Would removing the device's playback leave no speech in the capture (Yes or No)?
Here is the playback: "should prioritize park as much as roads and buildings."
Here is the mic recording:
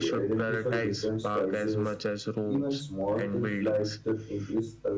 No